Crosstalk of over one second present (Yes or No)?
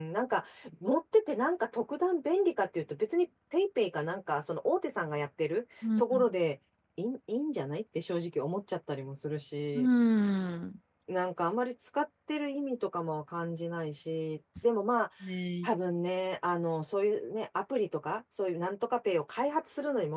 No